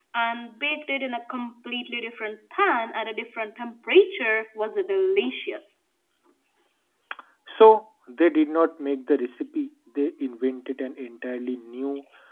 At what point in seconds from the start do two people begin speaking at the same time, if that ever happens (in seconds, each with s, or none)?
none